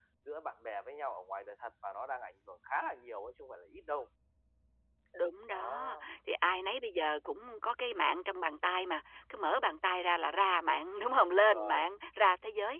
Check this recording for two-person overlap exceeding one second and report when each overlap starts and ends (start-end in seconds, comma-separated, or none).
none